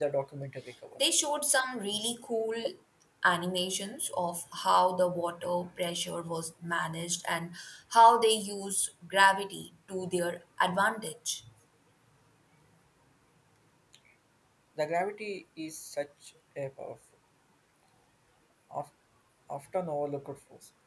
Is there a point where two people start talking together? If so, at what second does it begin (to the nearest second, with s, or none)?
none